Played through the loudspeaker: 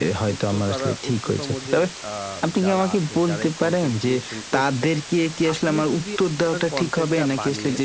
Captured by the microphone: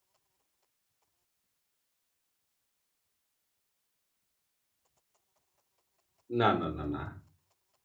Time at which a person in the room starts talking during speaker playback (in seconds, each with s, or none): 6.4 s